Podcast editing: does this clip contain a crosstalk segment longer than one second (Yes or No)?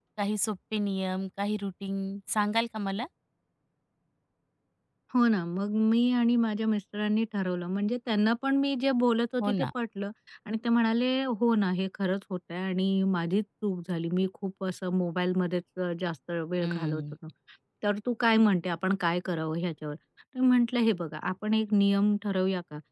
No